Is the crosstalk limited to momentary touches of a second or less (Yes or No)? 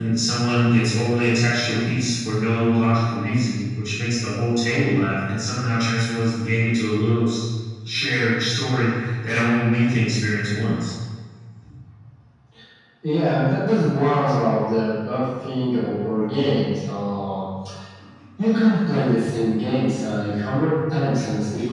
Yes